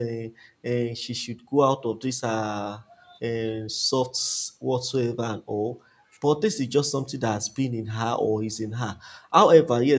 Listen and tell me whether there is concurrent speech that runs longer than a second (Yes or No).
No